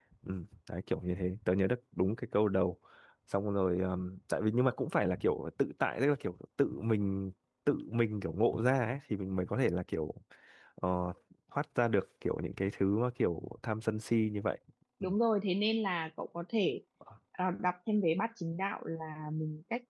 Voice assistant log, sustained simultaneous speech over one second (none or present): none